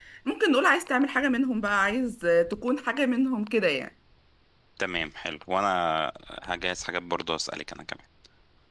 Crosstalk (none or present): none